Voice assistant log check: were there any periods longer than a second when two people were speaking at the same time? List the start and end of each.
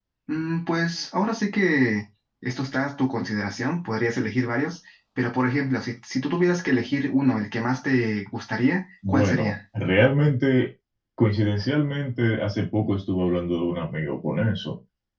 none

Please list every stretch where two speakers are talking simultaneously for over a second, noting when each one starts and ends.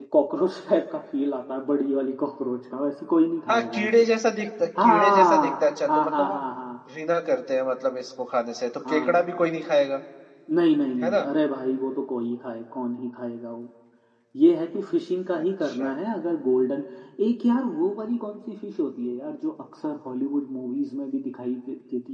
4.8-6.4

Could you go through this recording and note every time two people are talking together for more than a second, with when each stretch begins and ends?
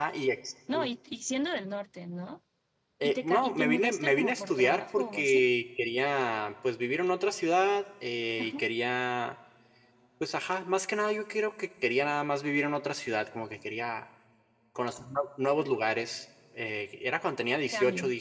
3.0-5.4

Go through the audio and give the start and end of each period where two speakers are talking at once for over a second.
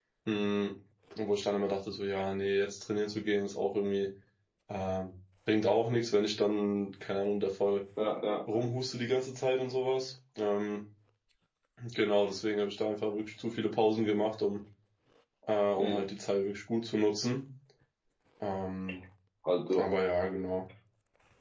none

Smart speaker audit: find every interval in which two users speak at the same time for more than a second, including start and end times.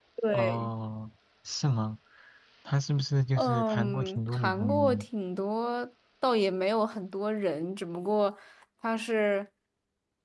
3.4-5.0

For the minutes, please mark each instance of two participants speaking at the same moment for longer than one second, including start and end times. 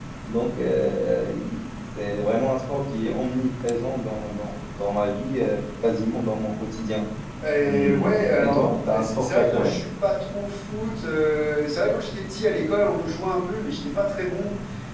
7.6-9.8

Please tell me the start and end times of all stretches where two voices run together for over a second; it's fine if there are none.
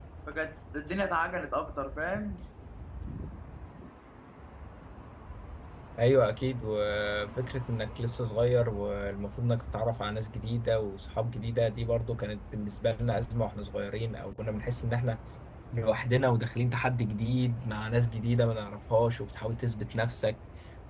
none

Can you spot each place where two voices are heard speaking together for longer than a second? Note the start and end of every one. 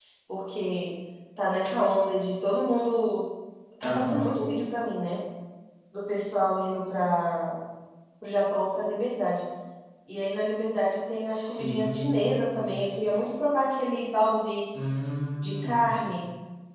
11.3-12.7

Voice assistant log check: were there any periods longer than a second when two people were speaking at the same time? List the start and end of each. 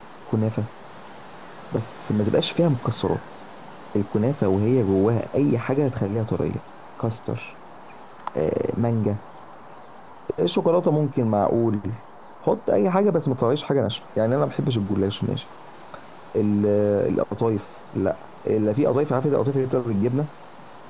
none

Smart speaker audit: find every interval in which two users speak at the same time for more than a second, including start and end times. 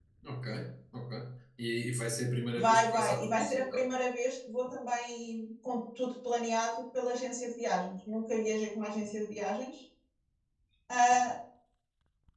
2.6-3.8

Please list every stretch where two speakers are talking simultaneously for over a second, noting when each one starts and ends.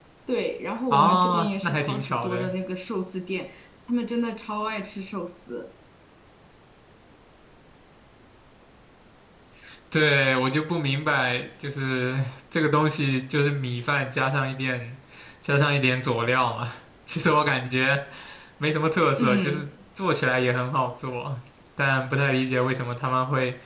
0.9-2.5

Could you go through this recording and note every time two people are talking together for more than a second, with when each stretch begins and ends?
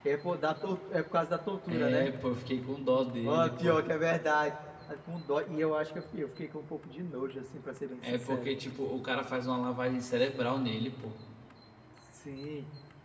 none

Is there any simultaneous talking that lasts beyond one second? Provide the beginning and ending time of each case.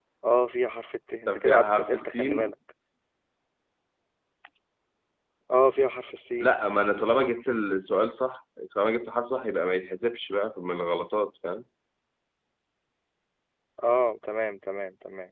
1.3-2.5

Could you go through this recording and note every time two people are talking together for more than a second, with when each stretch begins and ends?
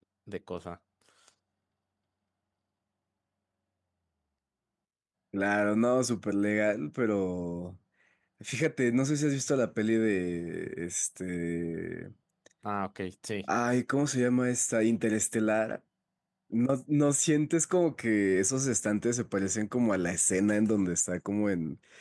none

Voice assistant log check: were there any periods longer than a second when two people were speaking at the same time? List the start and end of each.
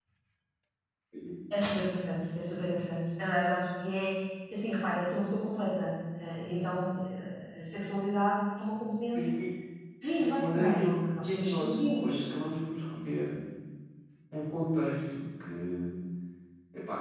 10.4-12.2

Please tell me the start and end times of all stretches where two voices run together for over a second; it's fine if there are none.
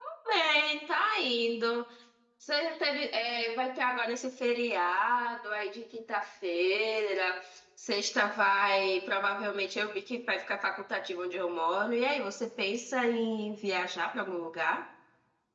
none

